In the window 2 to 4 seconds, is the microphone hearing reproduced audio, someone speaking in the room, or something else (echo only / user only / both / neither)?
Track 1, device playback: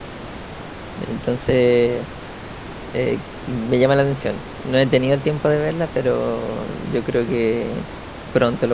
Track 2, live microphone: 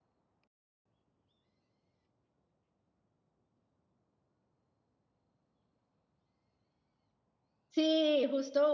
neither